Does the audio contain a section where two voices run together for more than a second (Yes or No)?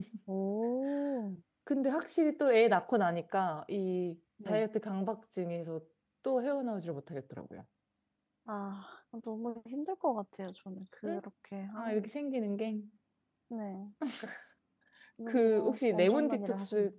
Yes